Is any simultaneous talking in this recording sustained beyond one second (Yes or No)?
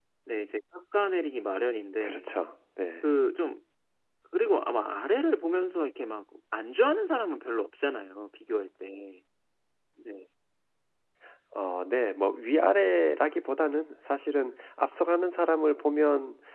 No